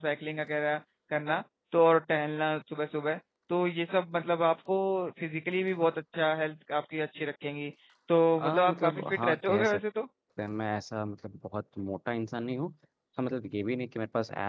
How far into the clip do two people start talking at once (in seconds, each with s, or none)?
8.4 s